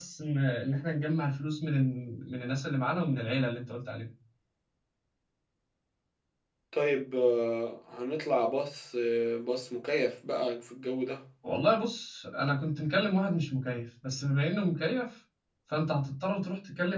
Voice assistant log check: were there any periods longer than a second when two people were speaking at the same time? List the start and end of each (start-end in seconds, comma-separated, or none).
none